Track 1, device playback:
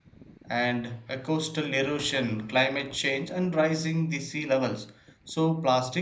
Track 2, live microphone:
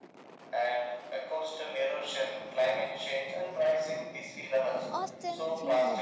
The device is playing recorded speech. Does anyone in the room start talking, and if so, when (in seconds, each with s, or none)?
4.9 s